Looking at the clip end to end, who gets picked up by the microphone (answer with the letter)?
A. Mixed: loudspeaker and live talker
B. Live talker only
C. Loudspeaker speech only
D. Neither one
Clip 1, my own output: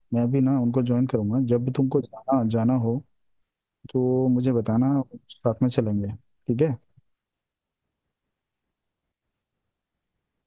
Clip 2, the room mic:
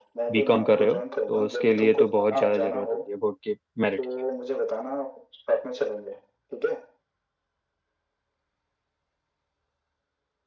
A